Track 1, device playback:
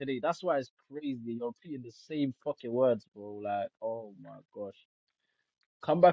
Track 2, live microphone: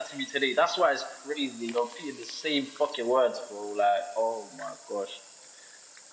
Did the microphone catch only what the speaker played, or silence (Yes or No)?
Yes